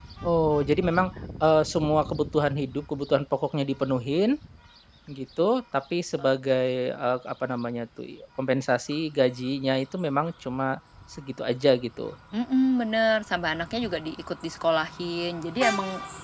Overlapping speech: No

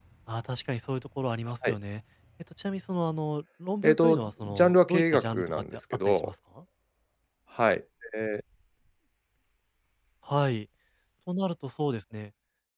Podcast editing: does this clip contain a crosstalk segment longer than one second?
Yes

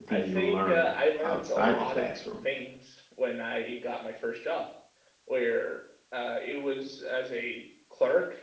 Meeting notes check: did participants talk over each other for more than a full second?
Yes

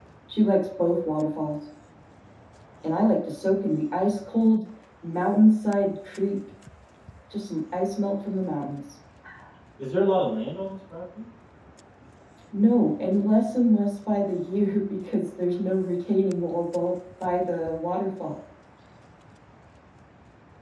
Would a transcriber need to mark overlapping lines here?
No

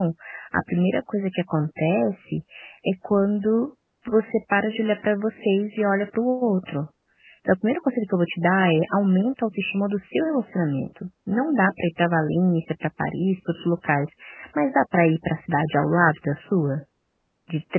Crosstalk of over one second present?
No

